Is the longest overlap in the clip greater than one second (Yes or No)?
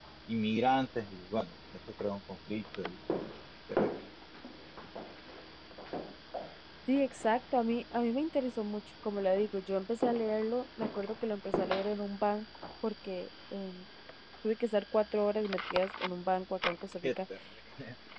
No